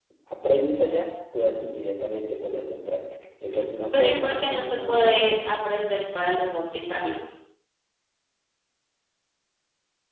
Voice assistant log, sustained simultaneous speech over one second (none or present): present